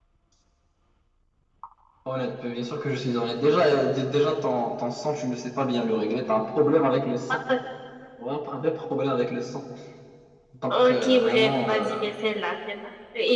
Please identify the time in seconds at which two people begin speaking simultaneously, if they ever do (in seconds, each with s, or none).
10.7 s